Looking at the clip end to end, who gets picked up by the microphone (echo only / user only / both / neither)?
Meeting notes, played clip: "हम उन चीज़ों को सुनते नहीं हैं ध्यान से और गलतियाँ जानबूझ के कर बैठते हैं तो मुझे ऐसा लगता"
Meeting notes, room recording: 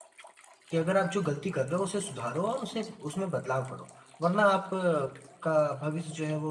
user only